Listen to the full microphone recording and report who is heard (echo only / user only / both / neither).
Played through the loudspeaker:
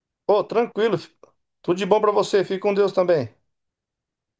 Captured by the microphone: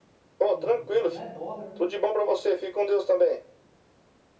both